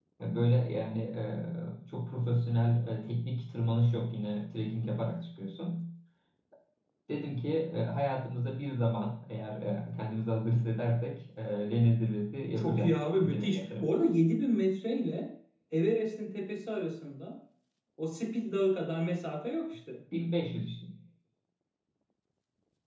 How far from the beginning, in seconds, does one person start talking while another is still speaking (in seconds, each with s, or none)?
12.6 s